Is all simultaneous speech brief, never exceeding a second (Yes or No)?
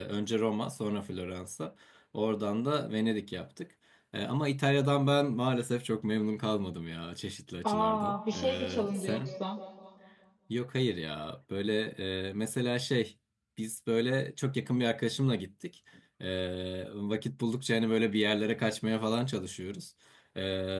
No